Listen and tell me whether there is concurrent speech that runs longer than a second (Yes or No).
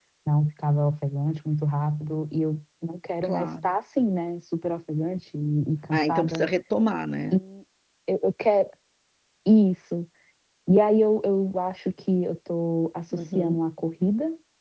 No